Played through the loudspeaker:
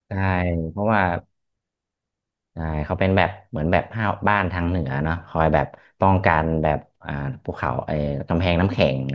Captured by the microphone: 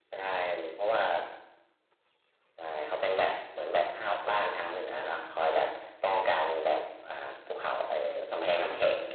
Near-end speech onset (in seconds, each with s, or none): none